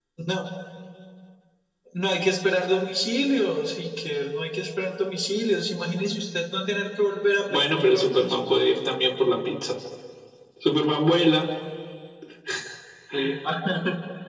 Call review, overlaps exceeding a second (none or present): present